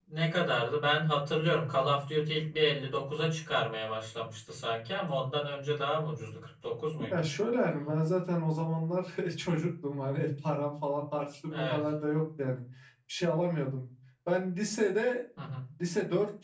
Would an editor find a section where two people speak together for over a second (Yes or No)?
No